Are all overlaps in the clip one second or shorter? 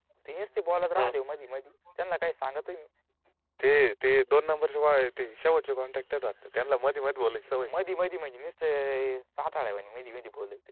Yes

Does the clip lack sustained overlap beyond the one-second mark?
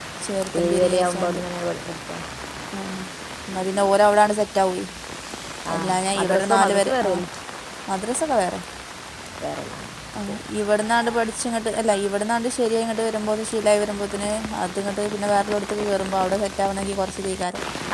No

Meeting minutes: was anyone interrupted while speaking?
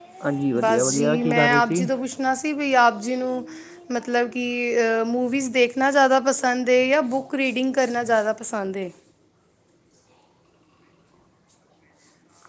Yes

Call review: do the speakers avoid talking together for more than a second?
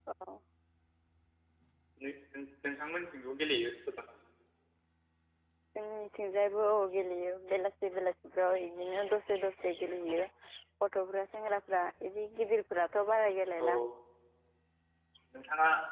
Yes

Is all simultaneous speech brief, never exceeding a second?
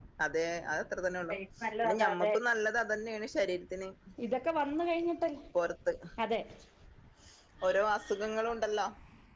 Yes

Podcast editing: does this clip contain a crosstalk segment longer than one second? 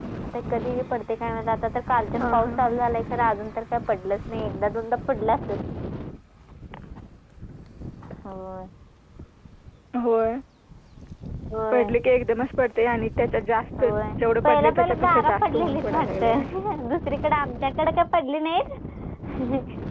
Yes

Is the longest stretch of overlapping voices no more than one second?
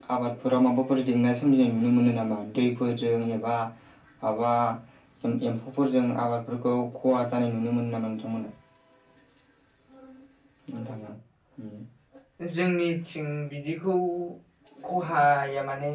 Yes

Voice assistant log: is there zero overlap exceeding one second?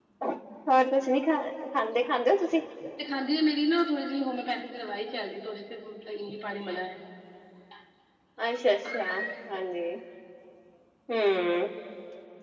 Yes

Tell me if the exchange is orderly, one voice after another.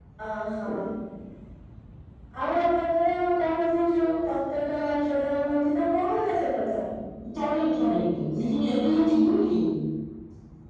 Yes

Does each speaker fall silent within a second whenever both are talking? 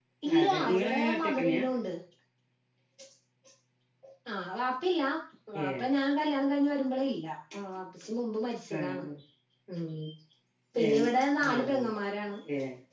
No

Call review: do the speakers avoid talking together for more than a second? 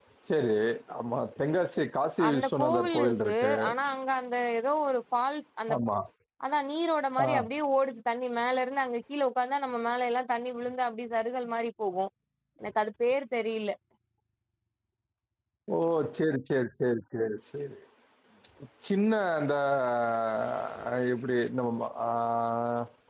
No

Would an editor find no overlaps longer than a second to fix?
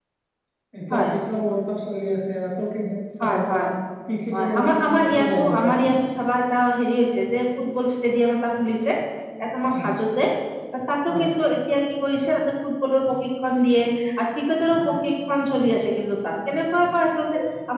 No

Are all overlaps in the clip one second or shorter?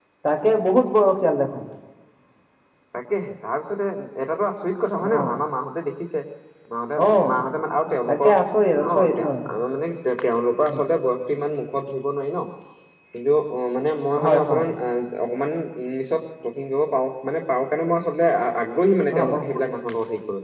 Yes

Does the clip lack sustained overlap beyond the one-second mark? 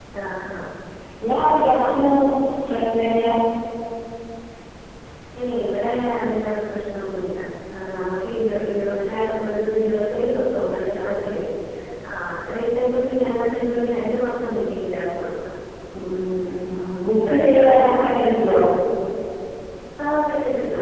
No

